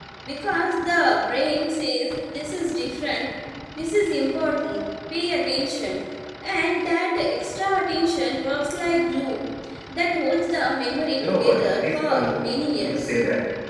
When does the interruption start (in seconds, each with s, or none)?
11.2 s